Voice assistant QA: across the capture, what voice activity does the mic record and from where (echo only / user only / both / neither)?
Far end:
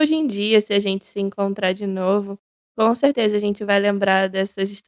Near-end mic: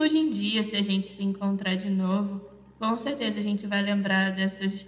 echo only